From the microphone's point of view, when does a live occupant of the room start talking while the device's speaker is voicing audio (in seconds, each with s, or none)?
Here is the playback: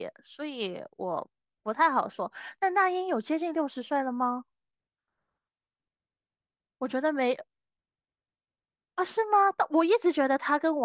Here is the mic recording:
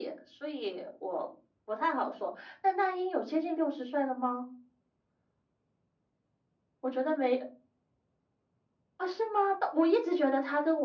none